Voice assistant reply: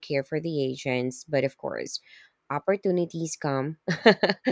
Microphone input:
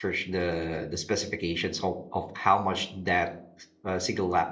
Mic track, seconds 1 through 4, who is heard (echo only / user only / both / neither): user only